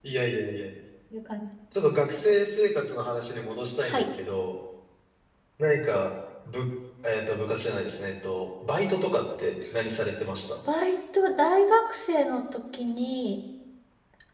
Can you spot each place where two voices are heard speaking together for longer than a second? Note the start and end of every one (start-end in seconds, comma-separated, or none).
none